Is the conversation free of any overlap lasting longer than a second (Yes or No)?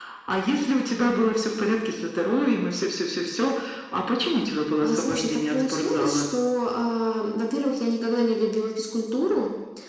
No